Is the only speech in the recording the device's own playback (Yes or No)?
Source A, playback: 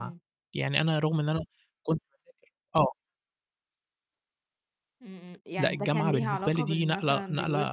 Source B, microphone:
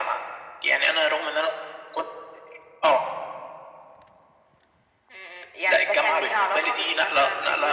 Yes